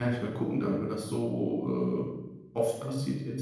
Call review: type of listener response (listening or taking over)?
taking over